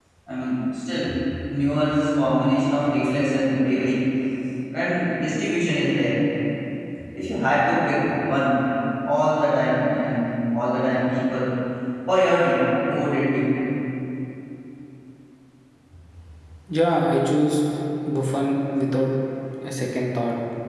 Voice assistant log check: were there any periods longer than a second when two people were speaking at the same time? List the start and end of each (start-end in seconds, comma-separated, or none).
none